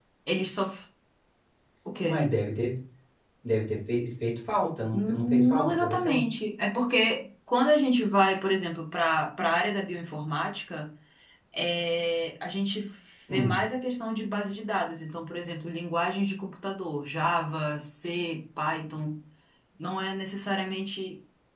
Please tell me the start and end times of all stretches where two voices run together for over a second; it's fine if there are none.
4.9-6.2

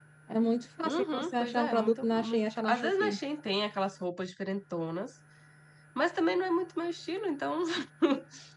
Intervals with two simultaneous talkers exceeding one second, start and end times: 0.8-3.2

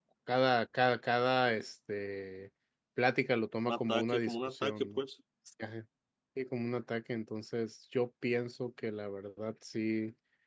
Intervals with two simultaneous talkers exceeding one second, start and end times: 3.7-5.0

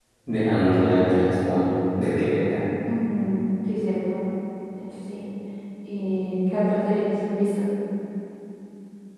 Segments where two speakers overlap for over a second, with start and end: none

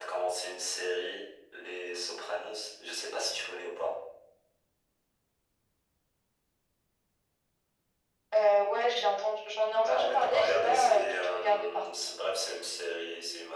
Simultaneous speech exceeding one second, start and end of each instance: 9.8-12.0

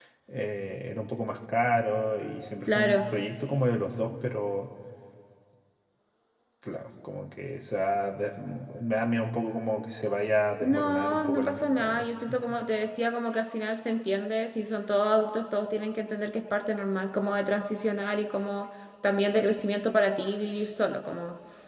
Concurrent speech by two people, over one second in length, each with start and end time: 10.6-12.6

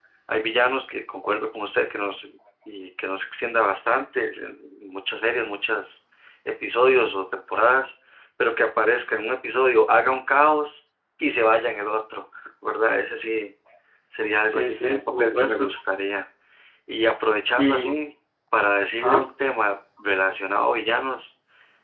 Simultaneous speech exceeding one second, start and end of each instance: 14.5-15.7

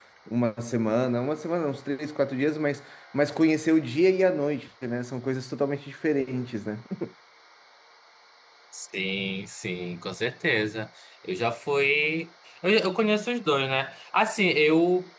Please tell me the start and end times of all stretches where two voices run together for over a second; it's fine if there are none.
none

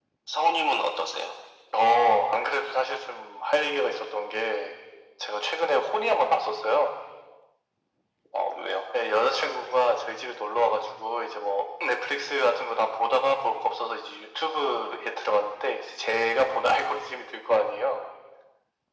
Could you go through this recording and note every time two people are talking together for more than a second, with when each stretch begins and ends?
none

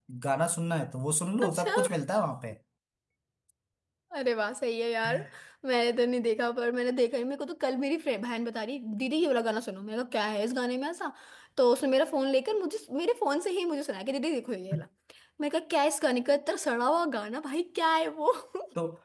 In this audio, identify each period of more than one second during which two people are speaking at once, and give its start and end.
none

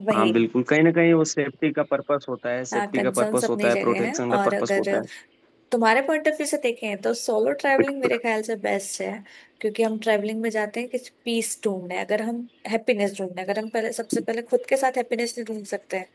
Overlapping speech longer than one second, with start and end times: 2.7-4.9

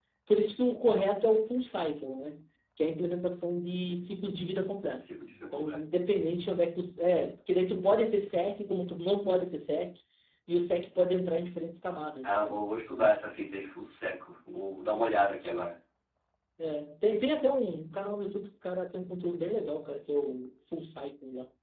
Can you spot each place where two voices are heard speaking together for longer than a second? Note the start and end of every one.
none

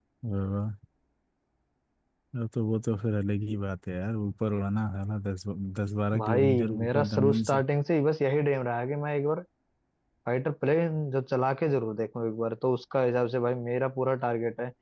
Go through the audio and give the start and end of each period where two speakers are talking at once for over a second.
6.2-7.6

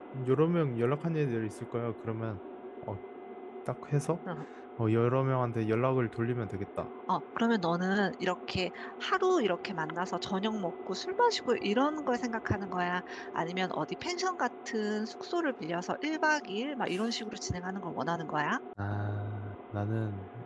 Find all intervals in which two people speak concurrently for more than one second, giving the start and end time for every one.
none

